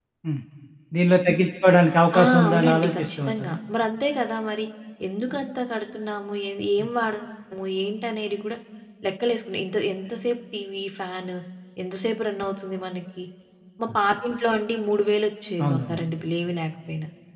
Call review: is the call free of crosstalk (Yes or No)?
No